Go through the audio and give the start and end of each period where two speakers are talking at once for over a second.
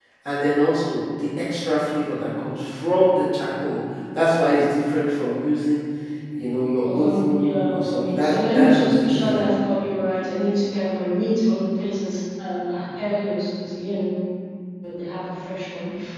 6.8-9.4

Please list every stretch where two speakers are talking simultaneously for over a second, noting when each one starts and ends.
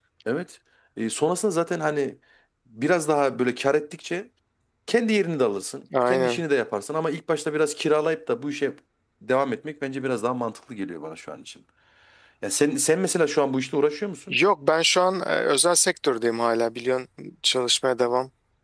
none

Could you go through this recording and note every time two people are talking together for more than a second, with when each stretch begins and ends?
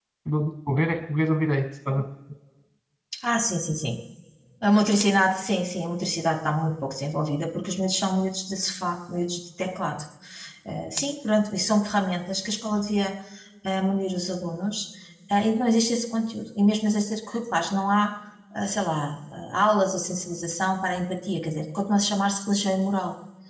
none

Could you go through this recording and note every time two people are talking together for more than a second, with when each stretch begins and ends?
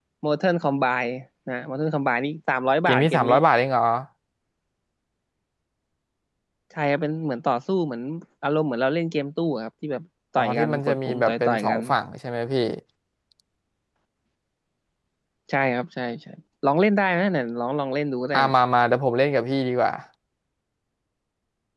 10.4-11.8

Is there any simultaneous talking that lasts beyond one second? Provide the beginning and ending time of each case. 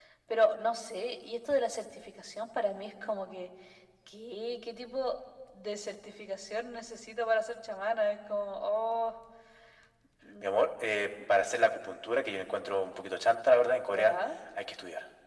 none

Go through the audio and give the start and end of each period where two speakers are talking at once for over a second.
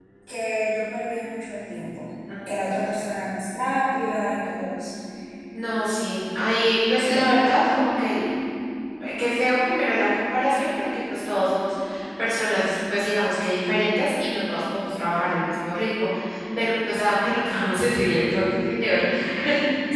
none

